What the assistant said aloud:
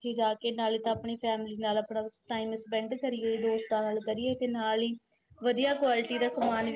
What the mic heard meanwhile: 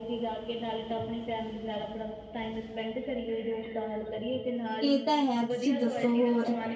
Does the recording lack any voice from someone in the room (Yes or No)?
No